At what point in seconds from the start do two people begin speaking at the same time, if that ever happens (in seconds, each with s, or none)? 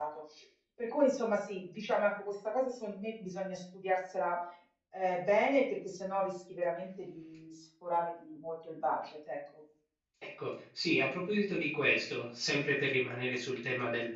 none